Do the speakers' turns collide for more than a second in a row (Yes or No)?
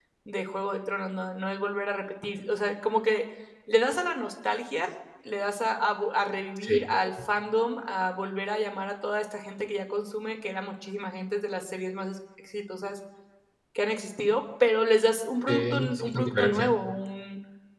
Yes